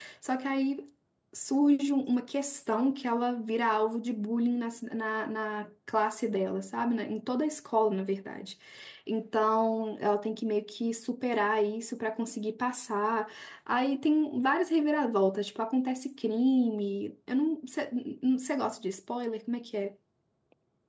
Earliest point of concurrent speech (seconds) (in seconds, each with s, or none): none